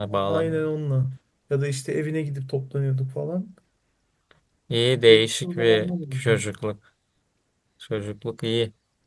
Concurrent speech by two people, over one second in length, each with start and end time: 5.1-6.4

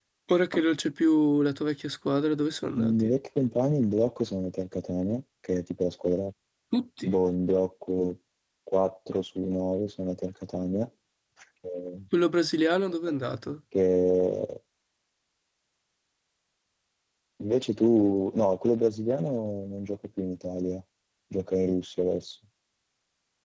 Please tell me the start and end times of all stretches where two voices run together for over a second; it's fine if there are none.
none

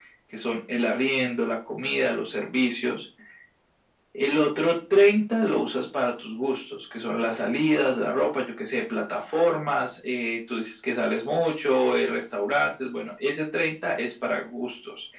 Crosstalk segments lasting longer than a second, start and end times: none

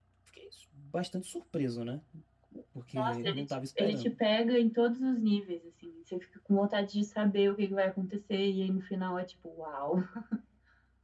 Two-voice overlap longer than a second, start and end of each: 3.0-4.2

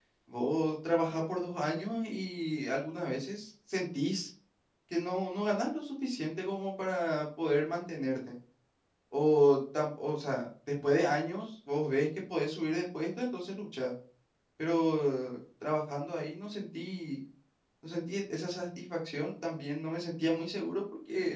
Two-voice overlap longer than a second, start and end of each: none

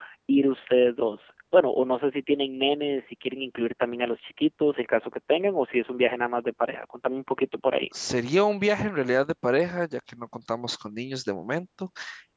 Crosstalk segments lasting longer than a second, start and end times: none

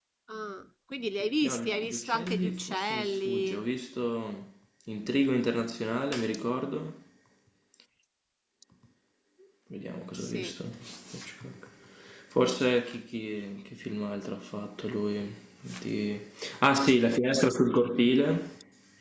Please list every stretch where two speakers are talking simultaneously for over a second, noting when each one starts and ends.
1.4-3.6

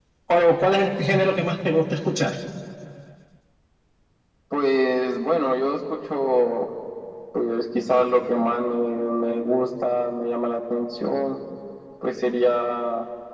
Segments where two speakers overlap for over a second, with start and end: none

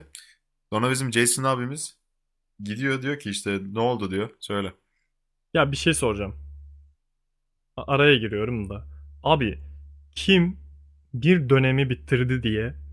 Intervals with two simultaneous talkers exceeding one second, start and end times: none

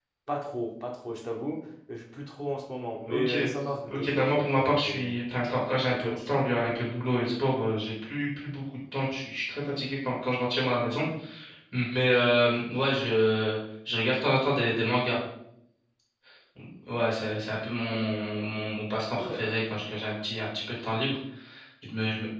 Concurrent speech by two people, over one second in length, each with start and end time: 3.9-5.2

